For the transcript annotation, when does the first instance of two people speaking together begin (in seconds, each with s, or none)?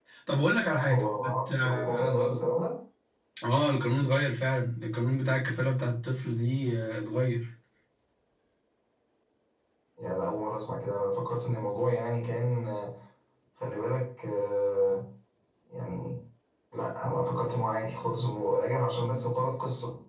0.9 s